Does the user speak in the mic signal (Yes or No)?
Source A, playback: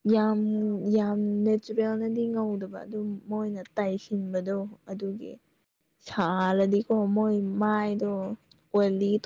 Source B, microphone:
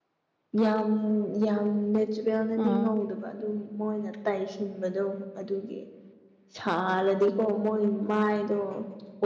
Yes